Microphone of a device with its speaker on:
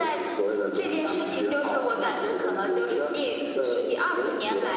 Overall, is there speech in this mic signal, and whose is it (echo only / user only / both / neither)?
echo only